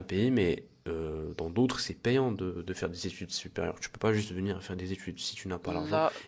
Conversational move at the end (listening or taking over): taking over